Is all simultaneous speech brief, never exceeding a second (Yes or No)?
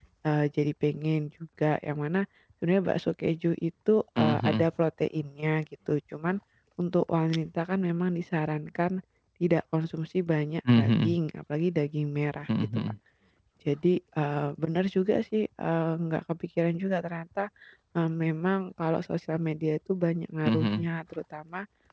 Yes